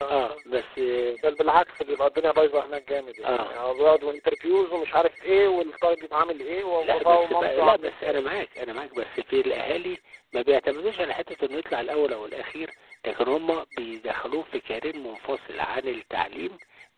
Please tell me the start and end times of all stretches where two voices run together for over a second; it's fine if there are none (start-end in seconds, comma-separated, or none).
6.8-8.3